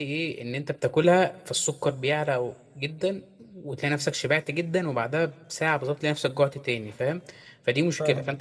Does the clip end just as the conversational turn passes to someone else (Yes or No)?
No